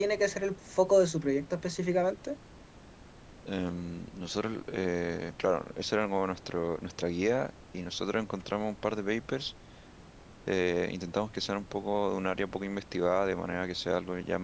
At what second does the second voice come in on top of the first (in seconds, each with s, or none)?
none